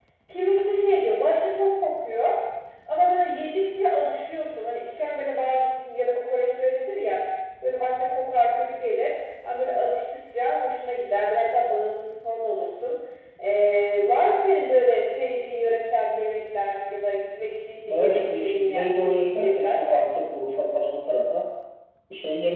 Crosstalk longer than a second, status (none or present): present